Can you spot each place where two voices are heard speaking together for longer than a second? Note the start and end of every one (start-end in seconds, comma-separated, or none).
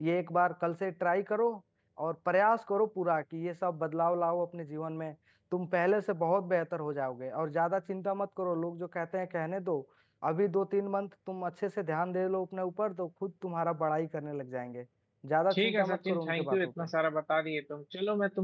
15.5-16.9